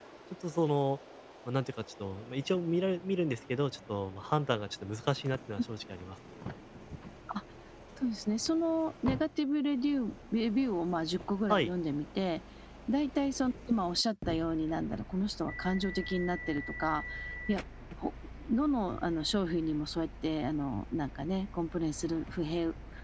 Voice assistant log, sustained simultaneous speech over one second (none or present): none